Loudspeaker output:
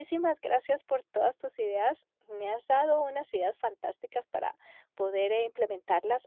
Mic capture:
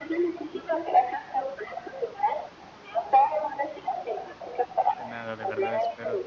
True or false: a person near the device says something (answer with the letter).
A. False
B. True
B